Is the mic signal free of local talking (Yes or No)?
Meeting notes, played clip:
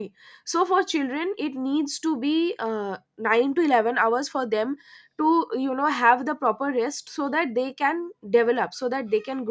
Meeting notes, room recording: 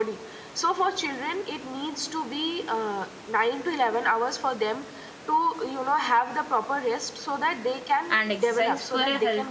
No